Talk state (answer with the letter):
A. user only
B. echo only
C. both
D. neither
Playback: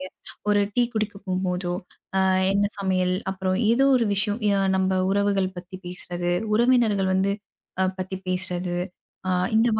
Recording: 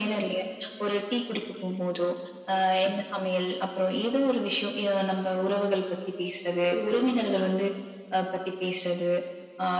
B